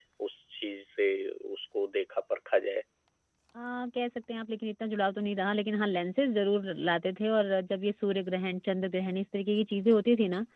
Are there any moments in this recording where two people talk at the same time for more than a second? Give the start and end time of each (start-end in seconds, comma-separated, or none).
none